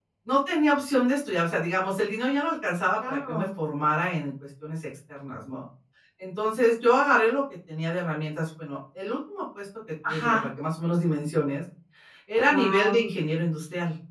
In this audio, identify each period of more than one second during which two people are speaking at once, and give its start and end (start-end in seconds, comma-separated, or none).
none